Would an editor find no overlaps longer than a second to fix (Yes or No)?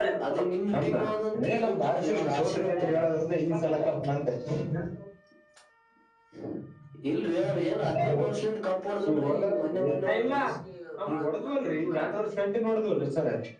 No